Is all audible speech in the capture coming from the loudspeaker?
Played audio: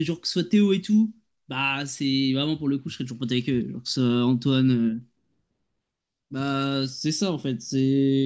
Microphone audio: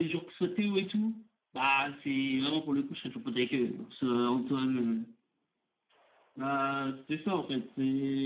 Yes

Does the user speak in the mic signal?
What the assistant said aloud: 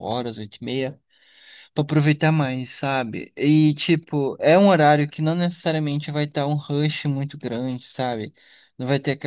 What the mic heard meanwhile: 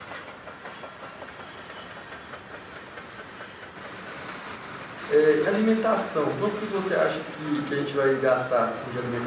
Yes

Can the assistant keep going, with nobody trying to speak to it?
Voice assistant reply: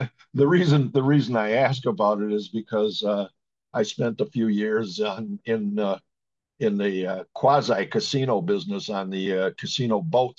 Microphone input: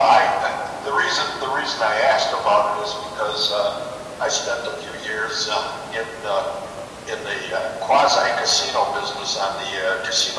Yes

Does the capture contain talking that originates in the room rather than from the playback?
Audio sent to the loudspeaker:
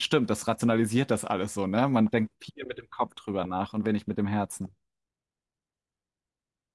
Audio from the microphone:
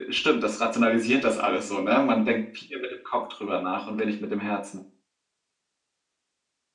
No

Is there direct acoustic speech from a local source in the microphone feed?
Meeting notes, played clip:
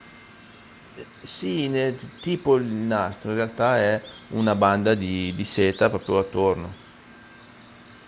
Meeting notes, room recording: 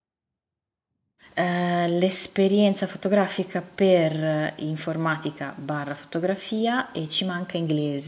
Yes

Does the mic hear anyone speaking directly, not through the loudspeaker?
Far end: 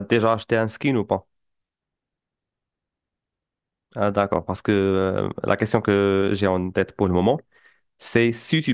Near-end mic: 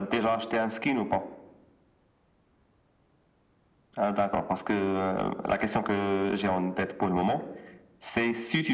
No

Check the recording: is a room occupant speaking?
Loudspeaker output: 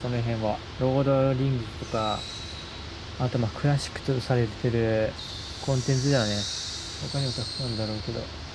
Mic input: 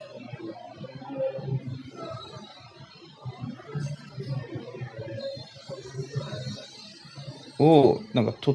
Yes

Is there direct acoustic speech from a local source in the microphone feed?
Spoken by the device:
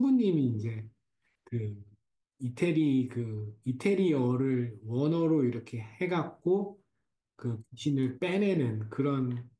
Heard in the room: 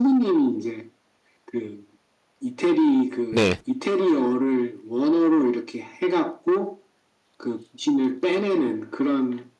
Yes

